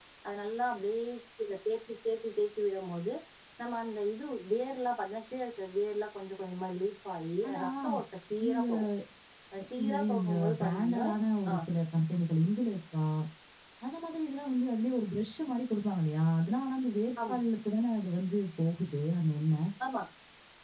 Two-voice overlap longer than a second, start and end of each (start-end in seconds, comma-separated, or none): 9.8-11.0